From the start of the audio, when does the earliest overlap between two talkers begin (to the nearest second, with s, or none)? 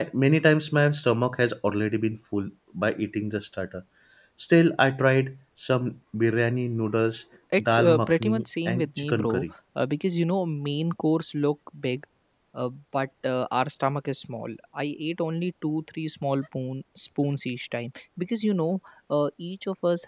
8 s